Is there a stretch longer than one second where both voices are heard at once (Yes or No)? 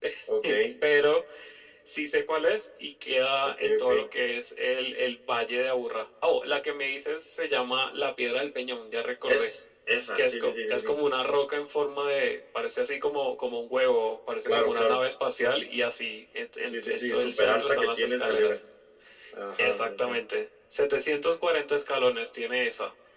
Yes